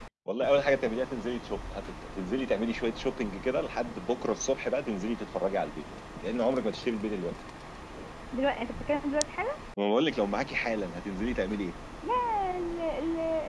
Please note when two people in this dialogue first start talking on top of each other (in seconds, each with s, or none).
none